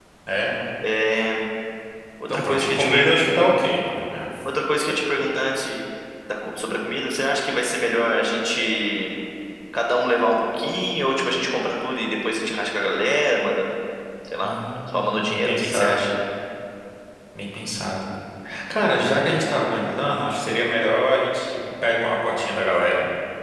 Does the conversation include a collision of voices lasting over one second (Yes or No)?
Yes